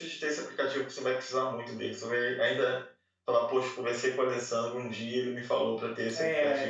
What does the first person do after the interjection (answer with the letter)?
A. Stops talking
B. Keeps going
A